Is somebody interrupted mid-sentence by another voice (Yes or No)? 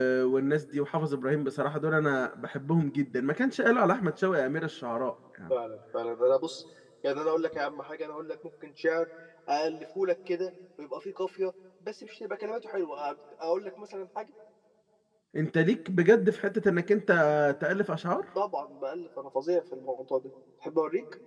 No